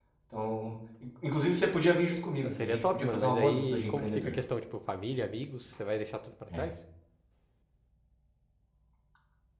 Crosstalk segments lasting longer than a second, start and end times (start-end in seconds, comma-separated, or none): 2.4-4.4